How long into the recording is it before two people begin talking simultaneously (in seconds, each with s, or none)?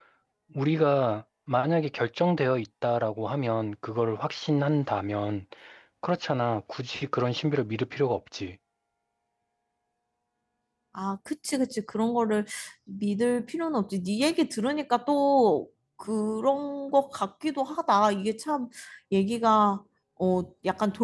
none